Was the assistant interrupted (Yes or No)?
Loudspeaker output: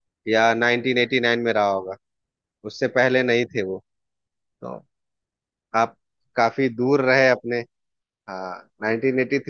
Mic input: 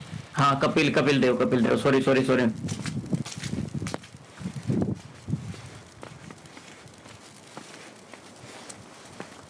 Yes